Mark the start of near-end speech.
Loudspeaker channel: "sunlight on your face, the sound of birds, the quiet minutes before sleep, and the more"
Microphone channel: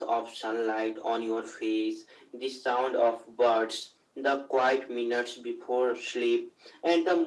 none

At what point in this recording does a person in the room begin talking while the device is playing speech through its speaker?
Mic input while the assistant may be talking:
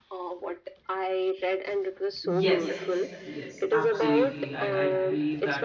2.2 s

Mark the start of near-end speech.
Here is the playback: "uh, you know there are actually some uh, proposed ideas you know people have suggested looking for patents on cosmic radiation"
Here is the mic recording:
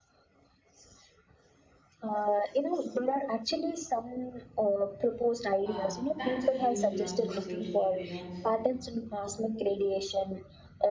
5.6 s

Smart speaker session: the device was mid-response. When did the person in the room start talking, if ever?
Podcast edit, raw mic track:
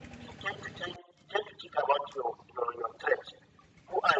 none

